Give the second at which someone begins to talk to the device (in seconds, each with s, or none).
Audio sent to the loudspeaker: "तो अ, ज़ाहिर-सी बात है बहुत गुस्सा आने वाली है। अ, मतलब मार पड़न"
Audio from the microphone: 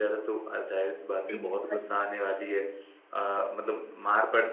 1.3 s